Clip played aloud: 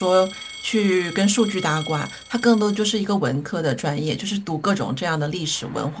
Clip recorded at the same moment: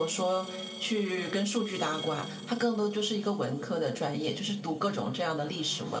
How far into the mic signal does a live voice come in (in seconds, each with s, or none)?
none